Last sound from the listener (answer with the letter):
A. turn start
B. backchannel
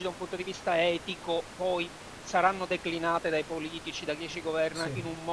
B